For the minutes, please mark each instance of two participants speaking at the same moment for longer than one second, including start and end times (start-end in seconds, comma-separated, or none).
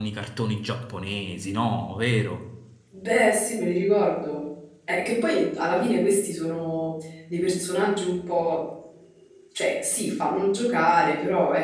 none